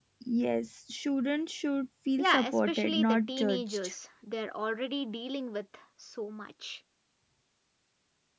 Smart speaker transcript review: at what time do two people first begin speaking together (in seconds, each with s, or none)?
2.2 s